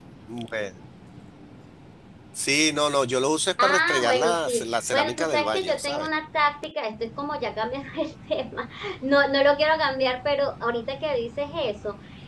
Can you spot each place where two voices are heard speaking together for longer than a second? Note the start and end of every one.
3.6-6.1

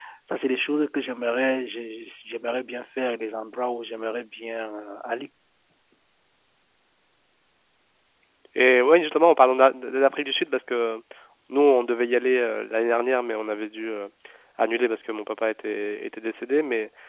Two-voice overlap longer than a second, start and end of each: none

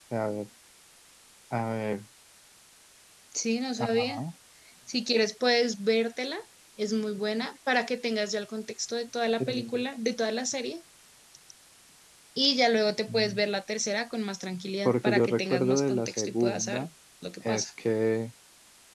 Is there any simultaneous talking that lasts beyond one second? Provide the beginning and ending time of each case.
14.8-16.9

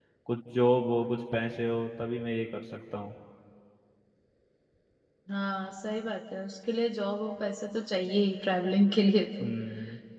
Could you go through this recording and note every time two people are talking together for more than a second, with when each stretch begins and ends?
none

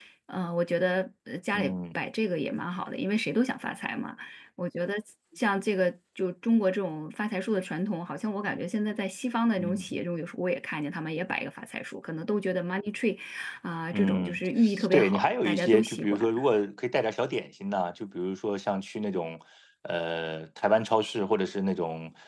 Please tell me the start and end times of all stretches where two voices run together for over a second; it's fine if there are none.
14.9-16.3

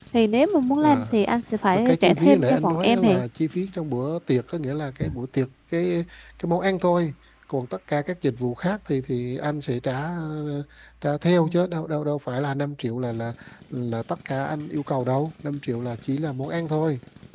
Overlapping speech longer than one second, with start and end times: 1.9-3.2

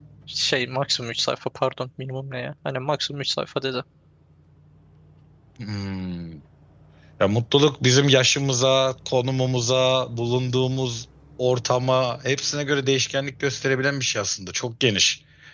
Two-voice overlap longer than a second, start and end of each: none

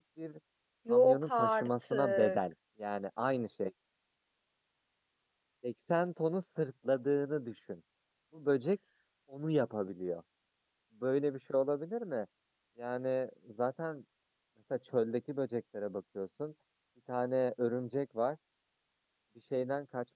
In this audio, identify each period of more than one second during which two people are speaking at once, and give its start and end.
0.9-2.4

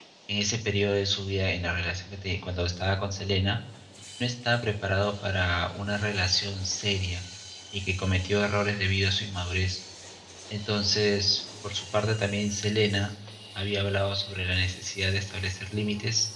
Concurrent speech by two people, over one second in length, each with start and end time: none

